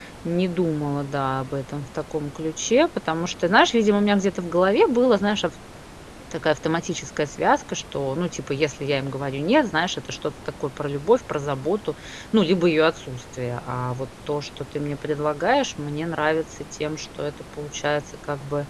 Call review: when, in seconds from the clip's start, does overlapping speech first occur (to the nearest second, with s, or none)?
none